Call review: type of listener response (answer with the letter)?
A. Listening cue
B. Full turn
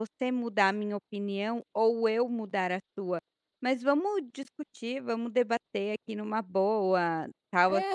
B